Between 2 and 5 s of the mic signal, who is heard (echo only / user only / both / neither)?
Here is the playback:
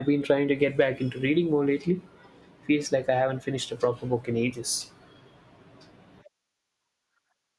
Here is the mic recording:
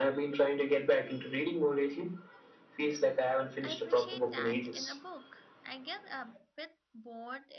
both